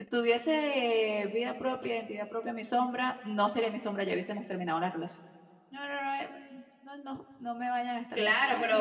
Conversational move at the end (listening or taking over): taking over